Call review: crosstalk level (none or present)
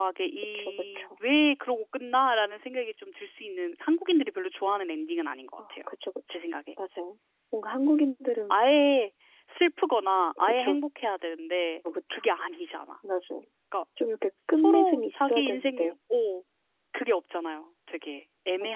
present